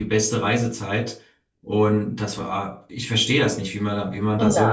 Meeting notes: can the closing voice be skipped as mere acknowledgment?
No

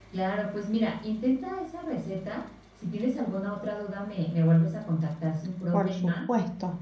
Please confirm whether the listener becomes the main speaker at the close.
Yes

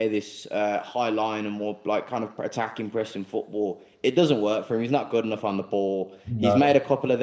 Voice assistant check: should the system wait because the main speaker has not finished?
Yes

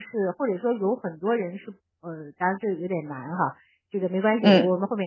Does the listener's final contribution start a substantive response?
No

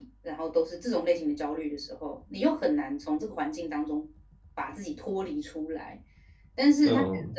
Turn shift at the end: No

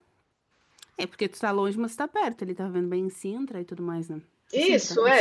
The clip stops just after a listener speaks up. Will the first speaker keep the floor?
No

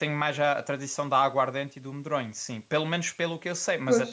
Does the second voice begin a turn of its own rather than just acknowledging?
No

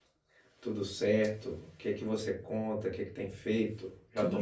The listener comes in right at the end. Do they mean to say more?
Yes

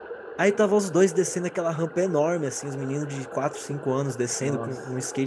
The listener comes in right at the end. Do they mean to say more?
No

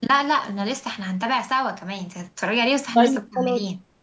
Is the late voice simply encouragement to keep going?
No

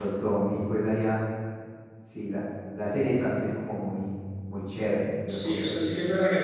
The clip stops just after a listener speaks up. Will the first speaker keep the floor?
No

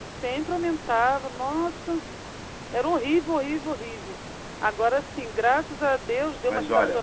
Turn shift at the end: No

